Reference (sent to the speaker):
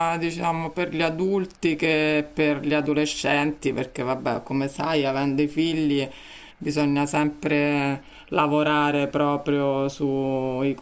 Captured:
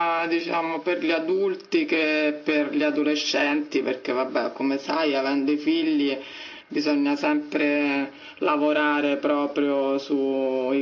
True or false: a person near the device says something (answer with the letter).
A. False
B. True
A